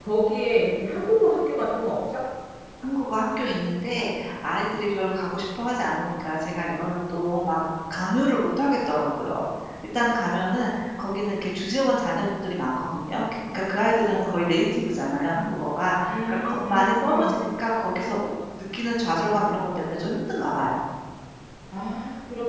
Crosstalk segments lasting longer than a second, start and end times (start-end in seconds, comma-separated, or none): 16.1-17.4